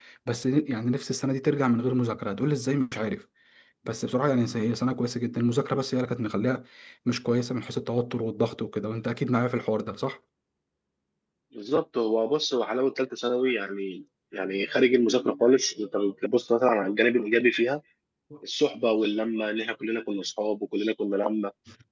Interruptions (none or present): none